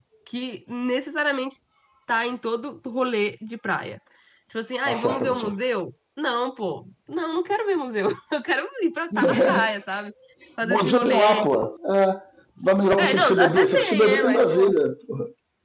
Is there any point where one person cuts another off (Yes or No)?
Yes